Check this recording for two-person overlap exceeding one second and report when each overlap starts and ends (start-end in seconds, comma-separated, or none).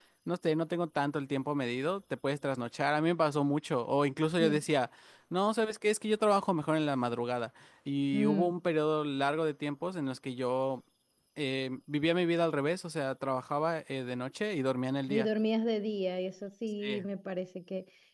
none